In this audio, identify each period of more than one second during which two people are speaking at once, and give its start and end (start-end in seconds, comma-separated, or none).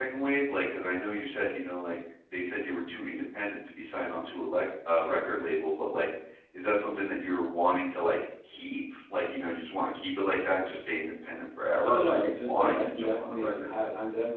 11.8-13.7